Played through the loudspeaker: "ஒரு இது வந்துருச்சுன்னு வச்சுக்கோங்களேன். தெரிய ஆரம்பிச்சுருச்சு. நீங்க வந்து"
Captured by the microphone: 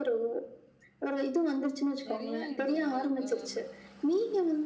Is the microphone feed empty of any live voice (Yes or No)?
No